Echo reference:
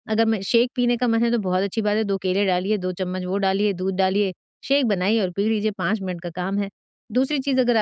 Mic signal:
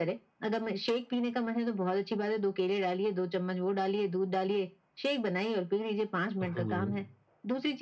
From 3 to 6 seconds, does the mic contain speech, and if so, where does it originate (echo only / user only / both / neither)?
echo only